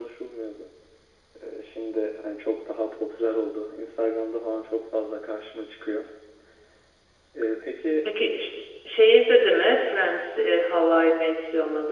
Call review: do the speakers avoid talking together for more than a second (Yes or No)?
Yes